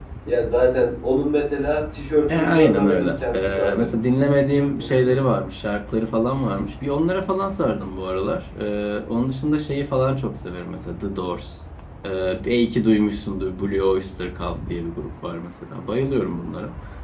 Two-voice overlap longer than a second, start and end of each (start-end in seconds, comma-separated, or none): 2.3-3.9